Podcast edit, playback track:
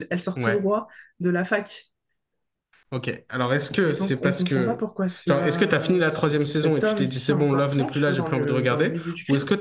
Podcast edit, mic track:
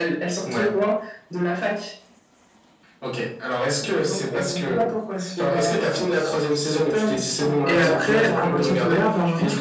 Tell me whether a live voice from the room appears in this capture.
Yes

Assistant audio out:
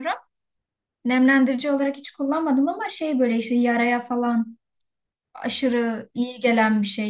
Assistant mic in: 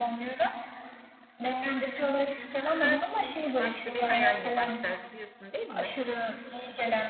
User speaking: Yes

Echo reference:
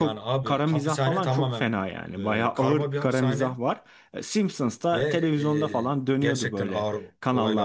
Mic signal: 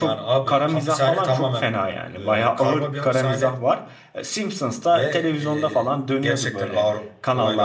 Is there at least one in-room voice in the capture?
No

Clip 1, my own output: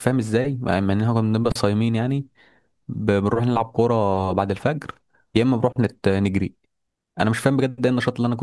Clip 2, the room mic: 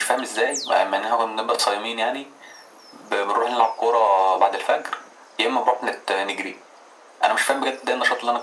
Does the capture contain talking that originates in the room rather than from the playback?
No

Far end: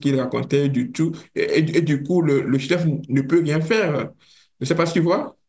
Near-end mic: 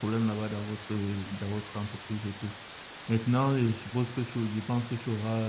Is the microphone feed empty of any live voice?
No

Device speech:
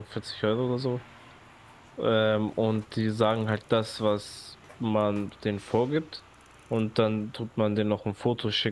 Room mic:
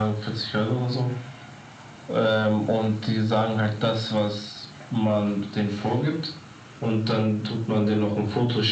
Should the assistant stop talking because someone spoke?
No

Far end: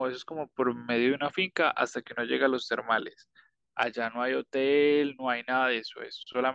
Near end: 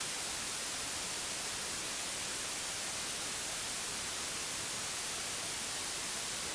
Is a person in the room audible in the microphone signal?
No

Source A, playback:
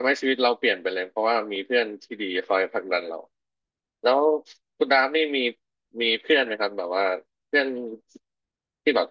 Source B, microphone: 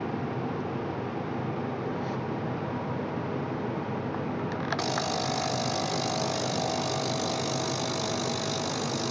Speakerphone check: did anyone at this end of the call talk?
No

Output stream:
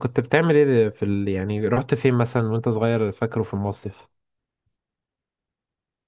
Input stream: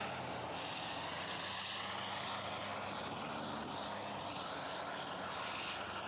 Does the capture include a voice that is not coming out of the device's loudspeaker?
No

